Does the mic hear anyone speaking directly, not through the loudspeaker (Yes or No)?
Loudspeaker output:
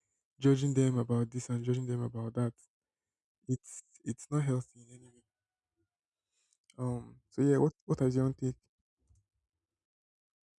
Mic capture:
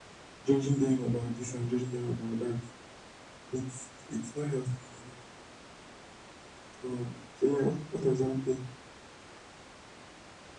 No